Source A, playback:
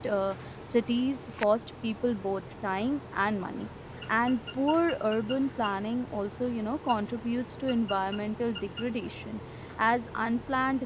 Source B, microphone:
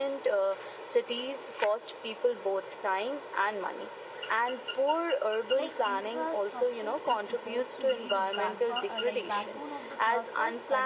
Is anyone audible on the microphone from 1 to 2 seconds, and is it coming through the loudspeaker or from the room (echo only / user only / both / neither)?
echo only